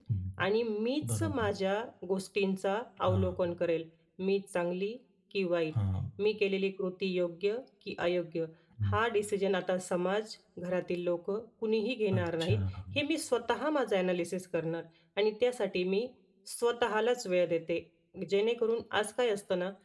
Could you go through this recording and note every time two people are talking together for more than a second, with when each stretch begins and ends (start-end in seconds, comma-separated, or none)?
none